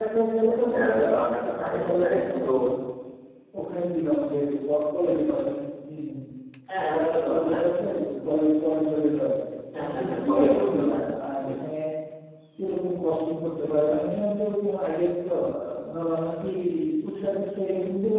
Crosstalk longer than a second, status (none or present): present